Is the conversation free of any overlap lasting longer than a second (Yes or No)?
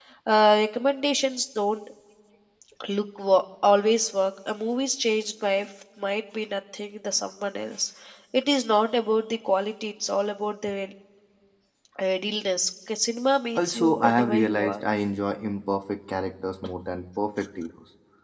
No